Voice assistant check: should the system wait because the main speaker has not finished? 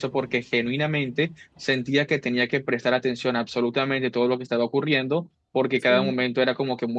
Yes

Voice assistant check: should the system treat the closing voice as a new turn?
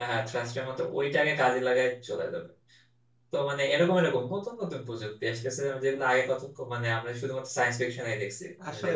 Yes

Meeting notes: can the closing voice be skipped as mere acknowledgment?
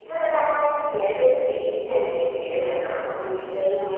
Yes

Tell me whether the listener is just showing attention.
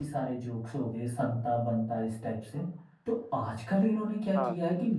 Yes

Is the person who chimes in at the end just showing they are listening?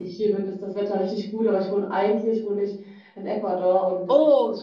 Yes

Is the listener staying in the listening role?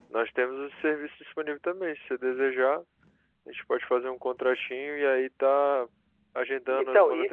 Yes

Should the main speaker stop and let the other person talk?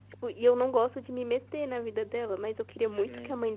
No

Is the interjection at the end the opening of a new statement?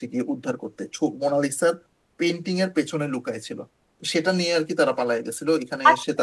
Yes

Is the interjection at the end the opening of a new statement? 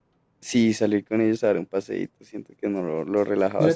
Yes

